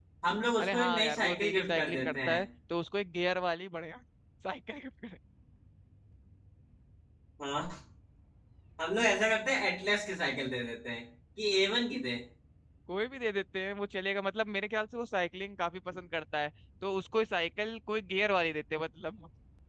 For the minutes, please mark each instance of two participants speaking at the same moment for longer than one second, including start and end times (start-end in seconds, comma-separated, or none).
0.6-2.4